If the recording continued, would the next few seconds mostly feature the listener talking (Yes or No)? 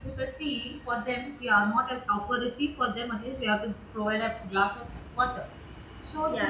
No